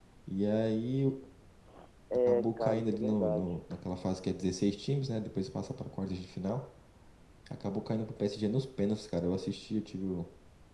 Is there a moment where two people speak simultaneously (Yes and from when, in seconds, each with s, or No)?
Yes, from 2.3 s